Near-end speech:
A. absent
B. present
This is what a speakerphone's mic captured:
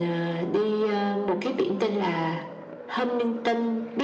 A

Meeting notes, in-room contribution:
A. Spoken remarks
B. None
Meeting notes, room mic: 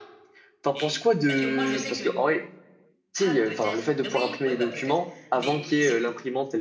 A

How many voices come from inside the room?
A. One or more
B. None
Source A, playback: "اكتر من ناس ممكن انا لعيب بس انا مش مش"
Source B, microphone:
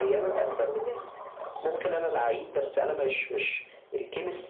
B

